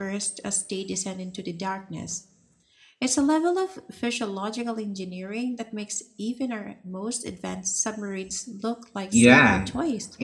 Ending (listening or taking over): taking over